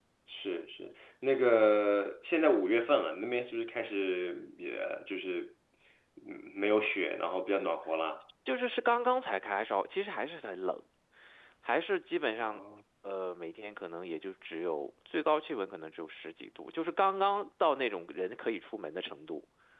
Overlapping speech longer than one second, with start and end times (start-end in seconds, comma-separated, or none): none